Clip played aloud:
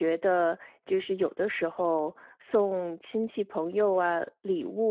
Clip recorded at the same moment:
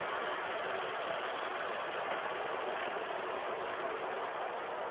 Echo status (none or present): none